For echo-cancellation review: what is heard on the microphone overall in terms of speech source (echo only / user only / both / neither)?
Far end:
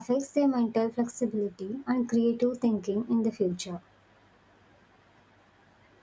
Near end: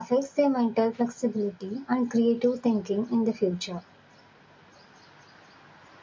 echo only